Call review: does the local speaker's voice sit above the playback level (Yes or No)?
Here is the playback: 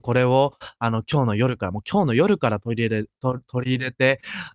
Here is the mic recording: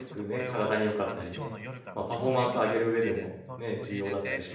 Yes